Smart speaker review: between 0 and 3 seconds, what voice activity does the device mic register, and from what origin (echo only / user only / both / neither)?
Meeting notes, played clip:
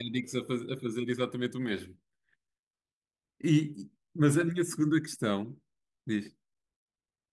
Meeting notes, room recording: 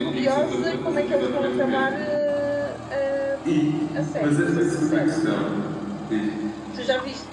both